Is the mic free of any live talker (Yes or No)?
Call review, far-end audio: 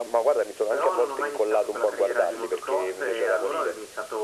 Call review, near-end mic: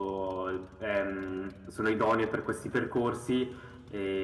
No